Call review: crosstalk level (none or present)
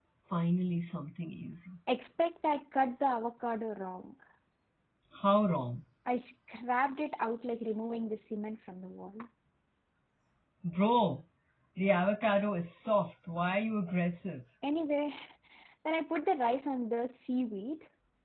none